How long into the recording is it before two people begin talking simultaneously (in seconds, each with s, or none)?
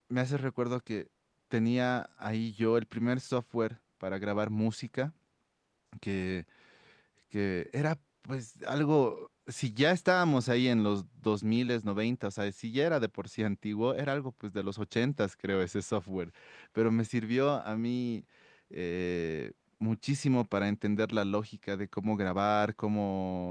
none